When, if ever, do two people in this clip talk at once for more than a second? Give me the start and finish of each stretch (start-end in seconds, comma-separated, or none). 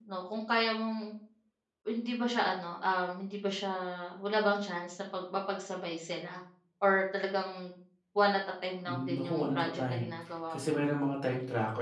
8.8-10.1